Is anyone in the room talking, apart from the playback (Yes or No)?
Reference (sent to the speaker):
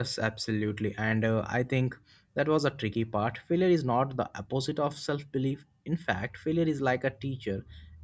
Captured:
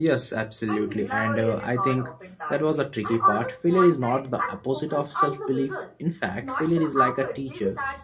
Yes